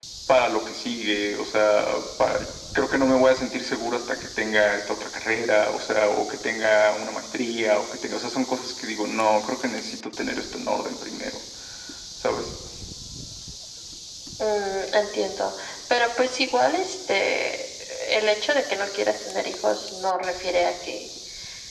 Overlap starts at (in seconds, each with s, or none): none